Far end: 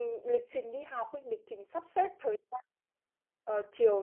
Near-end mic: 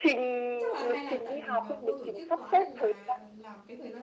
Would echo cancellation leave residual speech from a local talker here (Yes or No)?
Yes